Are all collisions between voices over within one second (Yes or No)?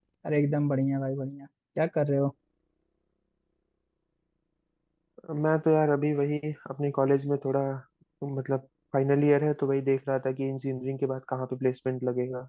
Yes